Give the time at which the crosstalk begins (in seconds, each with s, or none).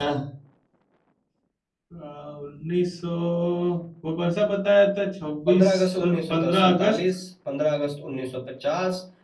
5.5 s